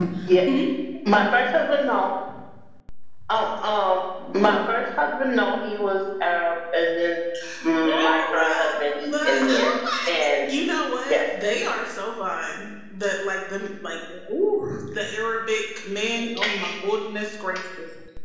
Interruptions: present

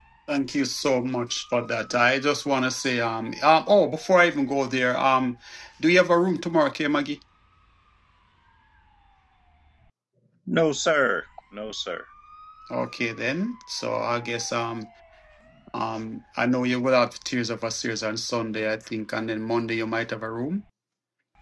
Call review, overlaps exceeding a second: none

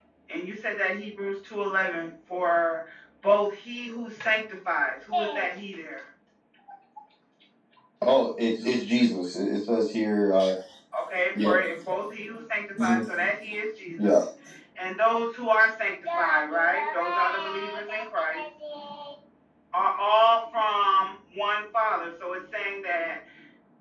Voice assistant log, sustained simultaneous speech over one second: none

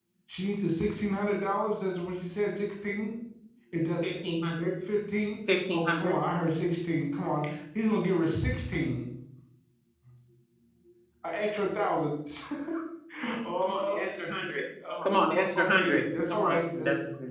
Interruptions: present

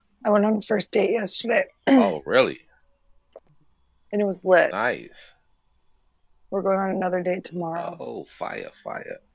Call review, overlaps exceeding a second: none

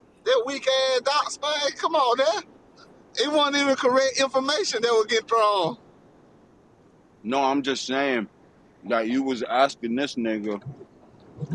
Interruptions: none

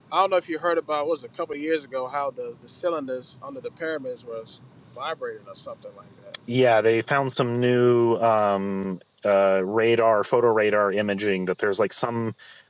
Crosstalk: none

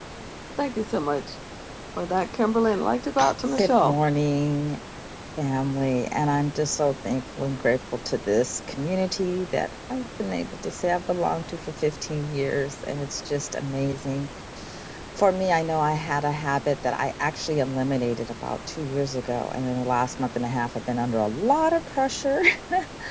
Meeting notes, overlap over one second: none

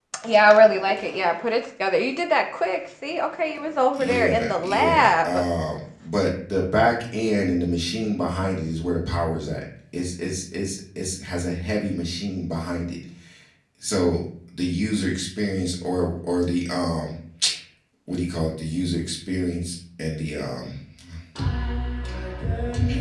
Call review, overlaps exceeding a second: present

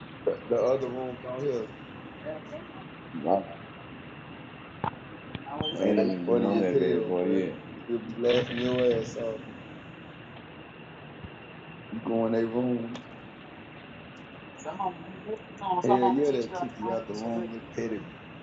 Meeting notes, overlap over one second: present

